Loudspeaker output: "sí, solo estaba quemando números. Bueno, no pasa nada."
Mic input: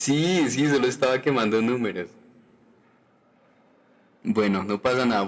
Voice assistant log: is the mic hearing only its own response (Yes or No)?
Yes